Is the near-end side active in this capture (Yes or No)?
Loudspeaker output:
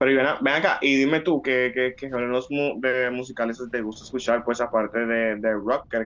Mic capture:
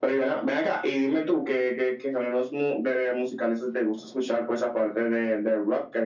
No